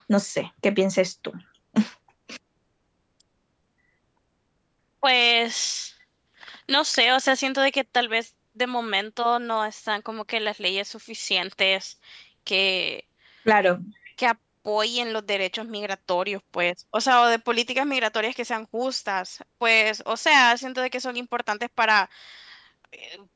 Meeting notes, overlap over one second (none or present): none